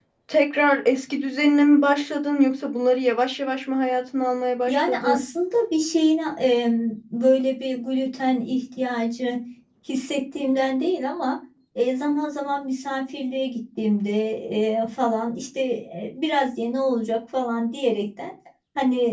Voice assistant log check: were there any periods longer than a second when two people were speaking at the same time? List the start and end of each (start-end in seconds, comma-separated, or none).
none